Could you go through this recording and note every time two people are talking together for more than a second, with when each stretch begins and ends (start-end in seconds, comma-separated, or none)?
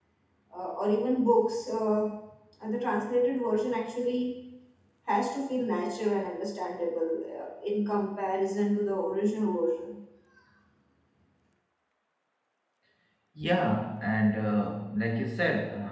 none